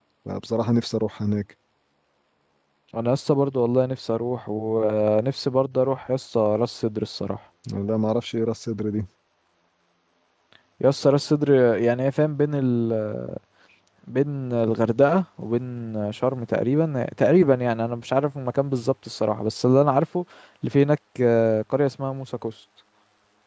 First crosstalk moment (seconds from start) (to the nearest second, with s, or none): none